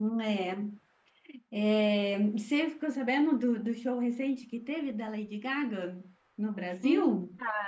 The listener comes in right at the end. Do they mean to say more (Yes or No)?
Yes